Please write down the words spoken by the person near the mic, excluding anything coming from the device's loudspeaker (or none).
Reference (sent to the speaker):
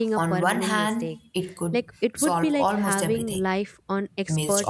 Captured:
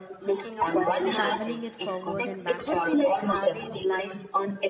traveling it forward and backward?